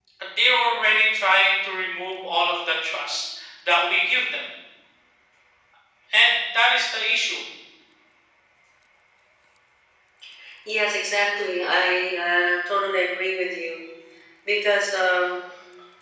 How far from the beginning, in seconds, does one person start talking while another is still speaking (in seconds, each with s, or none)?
none